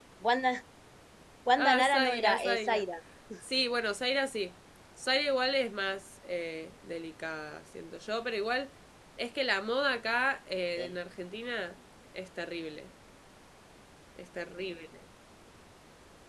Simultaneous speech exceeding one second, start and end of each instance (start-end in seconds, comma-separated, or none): 1.6-2.8